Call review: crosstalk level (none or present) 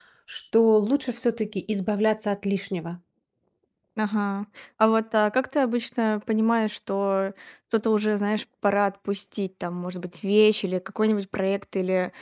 none